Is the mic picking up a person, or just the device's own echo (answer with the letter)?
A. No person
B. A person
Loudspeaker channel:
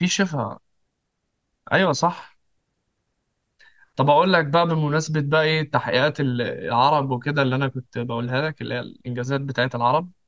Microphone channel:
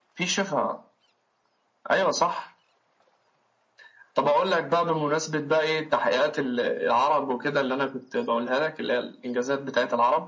A